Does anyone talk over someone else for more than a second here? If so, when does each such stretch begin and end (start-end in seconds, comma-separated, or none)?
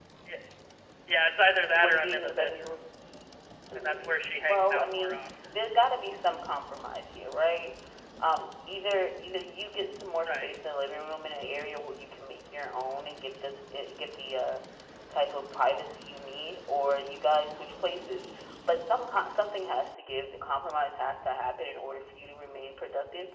1.4-2.7, 3.8-5.2